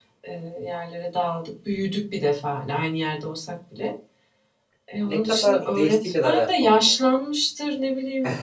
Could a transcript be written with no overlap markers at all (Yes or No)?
No